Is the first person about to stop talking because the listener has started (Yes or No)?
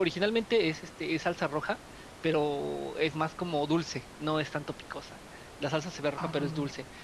No